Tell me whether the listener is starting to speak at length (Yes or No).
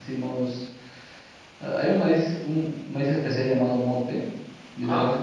No